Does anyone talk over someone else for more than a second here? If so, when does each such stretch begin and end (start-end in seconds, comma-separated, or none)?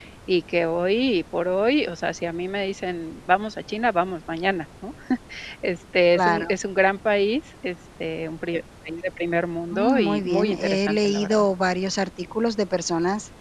9.7-11.4